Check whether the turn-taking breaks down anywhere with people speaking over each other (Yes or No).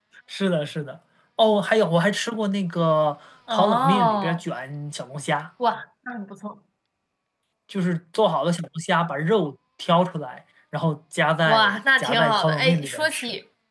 Yes